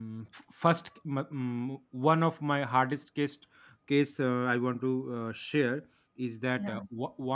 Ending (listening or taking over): listening